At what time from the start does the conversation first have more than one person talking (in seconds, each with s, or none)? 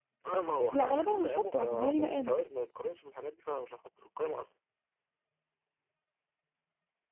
0.7 s